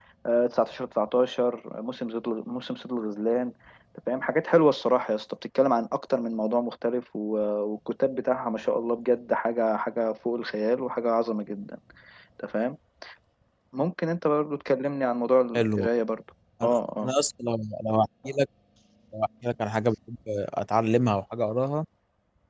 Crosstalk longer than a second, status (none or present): none